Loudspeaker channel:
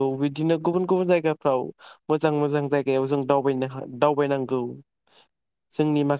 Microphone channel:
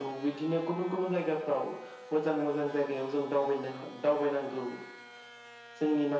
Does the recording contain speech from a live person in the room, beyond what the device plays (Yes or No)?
No